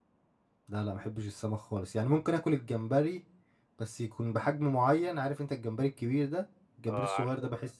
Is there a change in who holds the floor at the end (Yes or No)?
No